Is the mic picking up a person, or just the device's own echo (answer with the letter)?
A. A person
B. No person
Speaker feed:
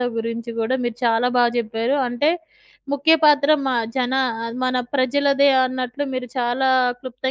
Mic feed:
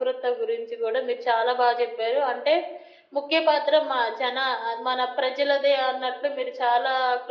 B